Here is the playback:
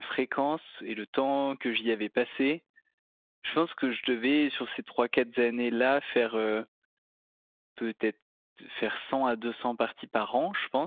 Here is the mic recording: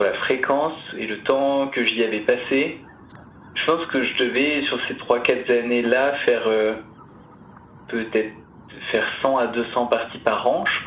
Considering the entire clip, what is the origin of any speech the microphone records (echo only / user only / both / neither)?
echo only